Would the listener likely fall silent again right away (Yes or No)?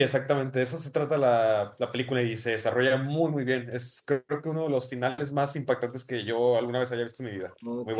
No